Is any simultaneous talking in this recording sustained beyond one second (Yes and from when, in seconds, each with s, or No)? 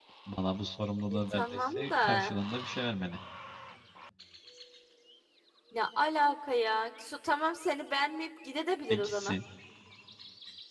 Yes, from 1.1 s